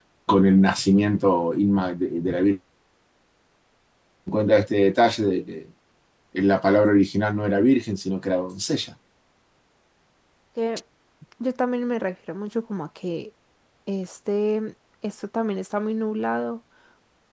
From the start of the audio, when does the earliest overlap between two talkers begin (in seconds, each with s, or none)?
none